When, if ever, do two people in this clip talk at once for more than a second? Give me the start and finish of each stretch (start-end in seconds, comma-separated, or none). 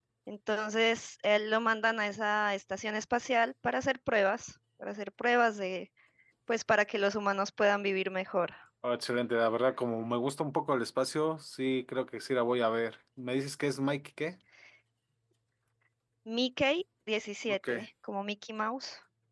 none